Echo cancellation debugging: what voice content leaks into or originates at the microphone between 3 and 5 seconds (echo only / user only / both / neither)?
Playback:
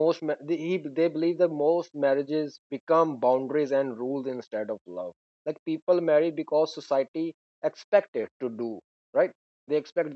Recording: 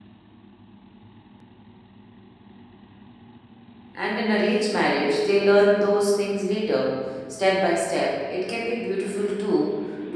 user only